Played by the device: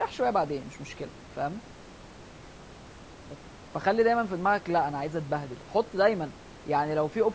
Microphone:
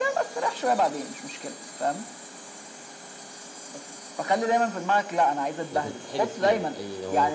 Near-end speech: present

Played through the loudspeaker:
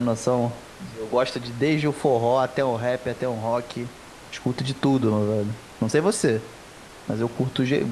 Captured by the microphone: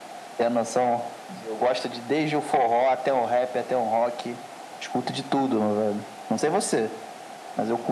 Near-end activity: none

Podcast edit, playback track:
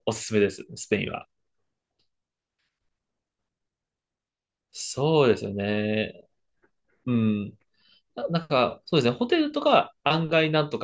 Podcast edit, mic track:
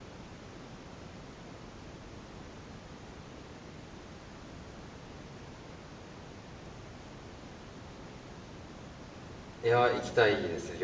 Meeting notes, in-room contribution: present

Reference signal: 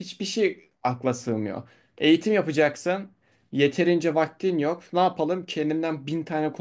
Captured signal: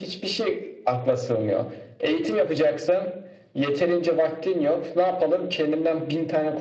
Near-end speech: none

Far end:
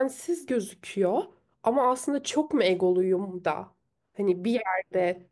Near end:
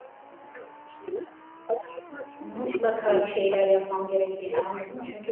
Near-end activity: present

